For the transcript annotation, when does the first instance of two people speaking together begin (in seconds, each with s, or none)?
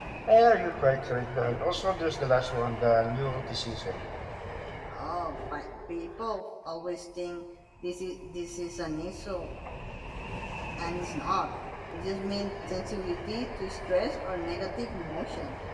none